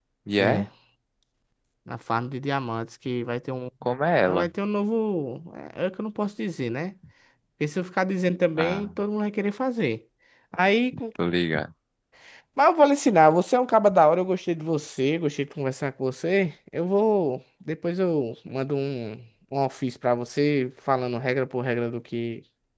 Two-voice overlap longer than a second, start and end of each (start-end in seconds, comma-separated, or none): none